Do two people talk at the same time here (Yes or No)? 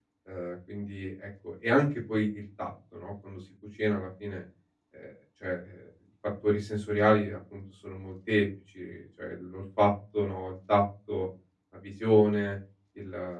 No